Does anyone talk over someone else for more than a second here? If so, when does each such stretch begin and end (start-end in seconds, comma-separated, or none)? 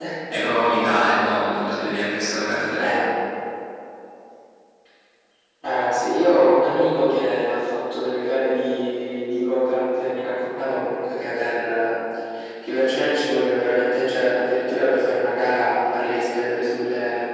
none